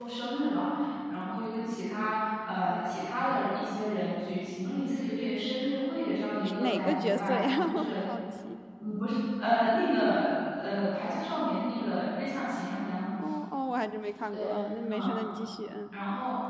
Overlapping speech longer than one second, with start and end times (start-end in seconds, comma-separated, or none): 6.3-8.0